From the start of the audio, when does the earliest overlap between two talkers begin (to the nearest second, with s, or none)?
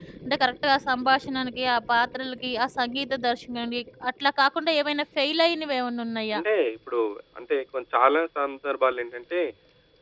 none